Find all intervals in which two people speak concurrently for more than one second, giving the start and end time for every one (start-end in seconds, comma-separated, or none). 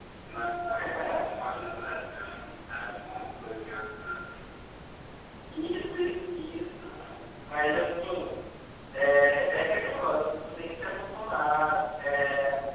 none